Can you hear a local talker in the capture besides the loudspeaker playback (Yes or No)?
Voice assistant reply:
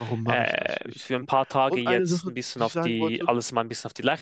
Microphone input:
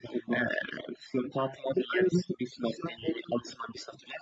No